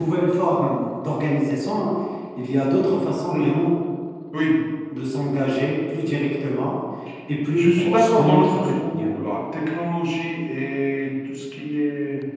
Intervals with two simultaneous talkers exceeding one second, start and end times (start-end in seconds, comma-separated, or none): 7.6-9.1